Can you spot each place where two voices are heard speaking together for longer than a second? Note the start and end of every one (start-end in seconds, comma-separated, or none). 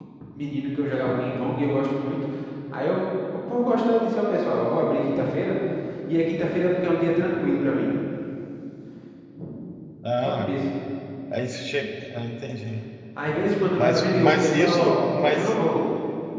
13.8-15.5